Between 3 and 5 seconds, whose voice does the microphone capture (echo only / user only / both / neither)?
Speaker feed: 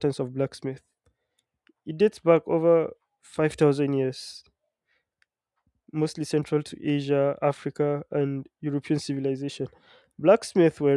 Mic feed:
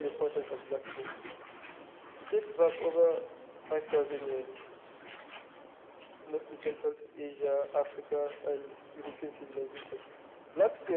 echo only